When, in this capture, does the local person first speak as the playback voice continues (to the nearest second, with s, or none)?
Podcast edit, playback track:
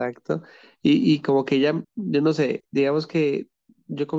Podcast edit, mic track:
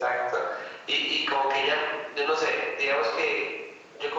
none